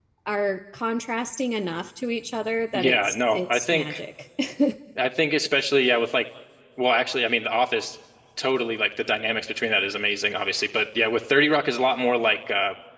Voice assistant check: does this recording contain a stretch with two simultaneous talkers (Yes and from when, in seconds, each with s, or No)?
Yes, from 2.7 s